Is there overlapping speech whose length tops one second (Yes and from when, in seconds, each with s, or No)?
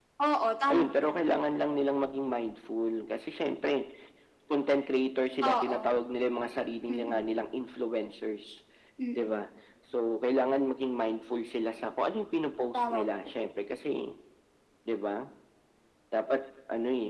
No